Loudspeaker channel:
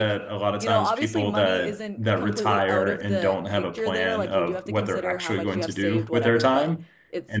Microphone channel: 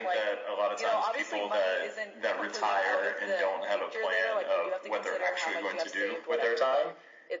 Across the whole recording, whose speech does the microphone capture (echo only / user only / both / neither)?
echo only